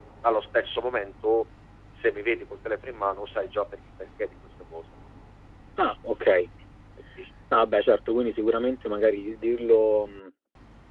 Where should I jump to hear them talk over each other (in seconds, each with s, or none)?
none